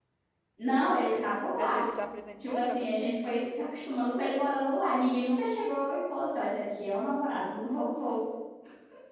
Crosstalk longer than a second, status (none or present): present